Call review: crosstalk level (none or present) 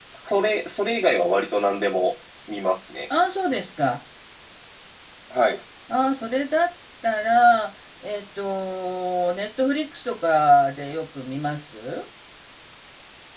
none